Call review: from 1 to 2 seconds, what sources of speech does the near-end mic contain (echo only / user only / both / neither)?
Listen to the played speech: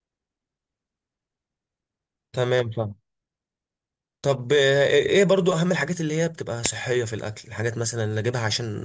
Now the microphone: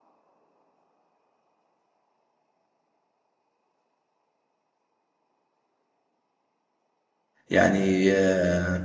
neither